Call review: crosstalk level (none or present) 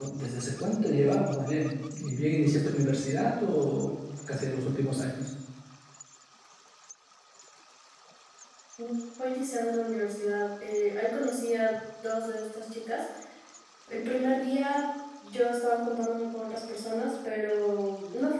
none